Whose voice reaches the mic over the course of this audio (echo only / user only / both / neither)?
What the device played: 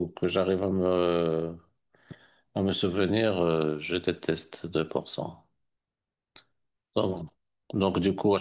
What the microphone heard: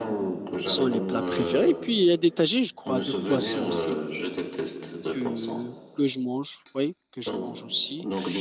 both